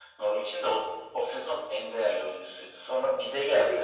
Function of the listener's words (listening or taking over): listening